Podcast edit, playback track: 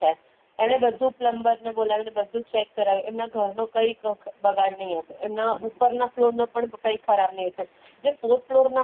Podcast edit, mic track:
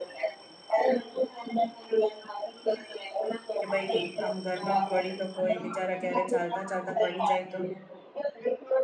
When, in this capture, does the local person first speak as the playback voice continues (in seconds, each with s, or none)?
3.6 s